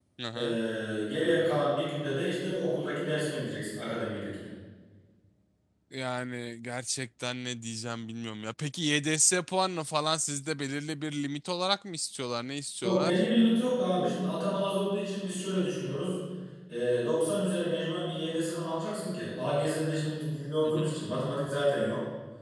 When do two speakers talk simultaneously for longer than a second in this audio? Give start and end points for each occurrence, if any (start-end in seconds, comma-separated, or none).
none